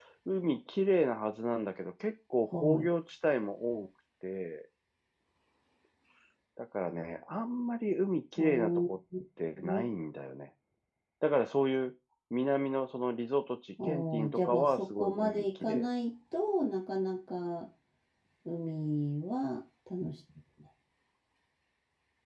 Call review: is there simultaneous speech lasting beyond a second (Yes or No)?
Yes